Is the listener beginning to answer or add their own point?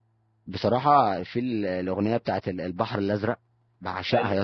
No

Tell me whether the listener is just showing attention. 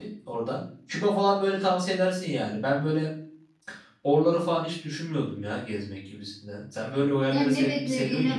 No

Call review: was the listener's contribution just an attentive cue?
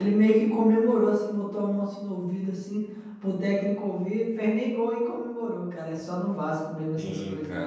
No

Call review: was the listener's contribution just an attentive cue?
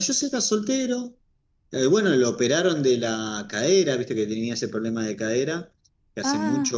Yes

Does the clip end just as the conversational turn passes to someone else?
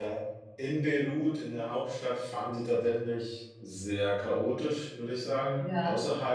No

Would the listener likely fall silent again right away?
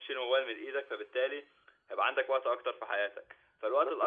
Yes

